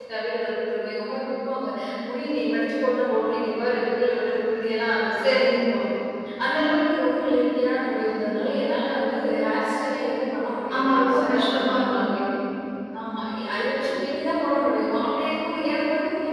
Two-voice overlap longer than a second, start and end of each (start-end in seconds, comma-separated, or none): 10.8-12.1